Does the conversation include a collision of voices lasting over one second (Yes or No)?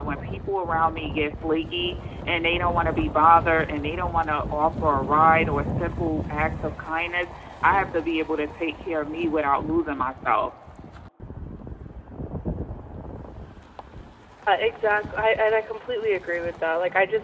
No